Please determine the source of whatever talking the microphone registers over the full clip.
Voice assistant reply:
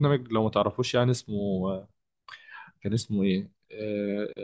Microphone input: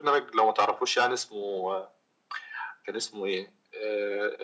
echo only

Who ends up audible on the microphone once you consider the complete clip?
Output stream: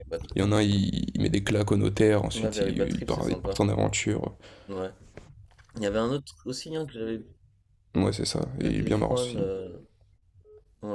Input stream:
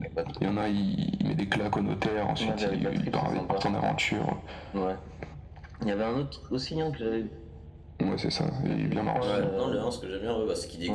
both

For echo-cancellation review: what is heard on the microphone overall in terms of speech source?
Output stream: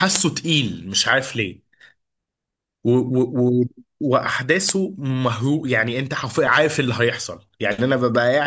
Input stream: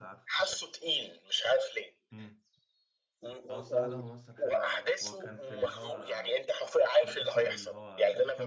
both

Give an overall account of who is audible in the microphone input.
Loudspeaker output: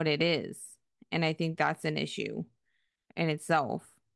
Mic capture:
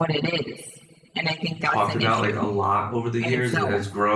both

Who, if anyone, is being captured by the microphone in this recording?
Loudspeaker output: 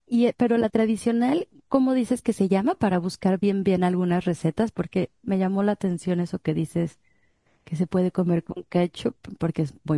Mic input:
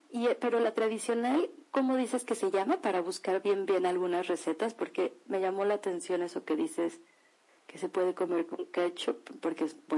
echo only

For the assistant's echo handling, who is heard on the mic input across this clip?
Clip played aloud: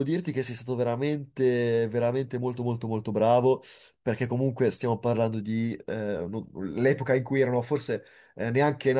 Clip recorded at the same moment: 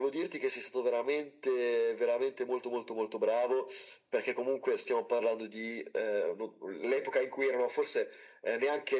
echo only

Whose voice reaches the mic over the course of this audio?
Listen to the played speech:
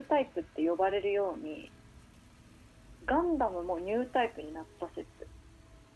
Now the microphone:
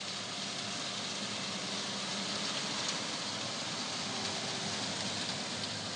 neither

